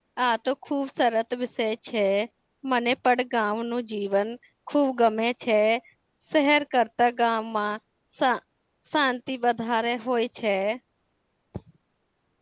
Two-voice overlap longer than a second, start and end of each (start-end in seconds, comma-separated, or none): none